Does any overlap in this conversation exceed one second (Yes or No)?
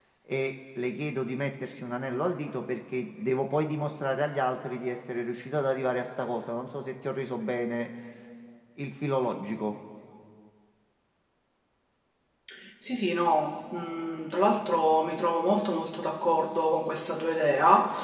No